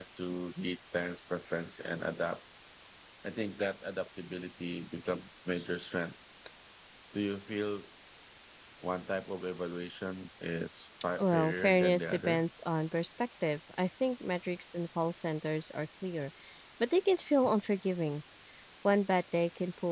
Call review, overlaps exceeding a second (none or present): present